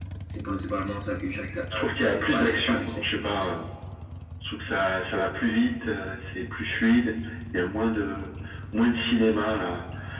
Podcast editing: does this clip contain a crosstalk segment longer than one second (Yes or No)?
Yes